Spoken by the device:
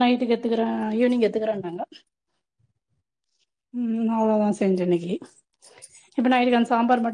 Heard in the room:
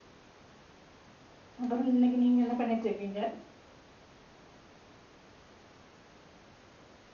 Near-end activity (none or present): present